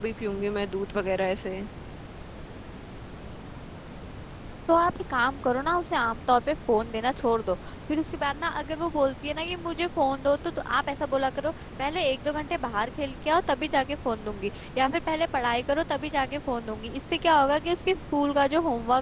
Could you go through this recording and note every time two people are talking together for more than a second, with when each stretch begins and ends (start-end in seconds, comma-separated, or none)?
none